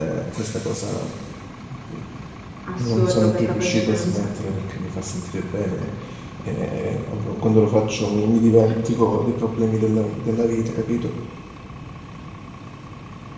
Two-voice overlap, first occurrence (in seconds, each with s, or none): 2.8 s